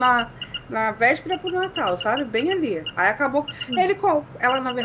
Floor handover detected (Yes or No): No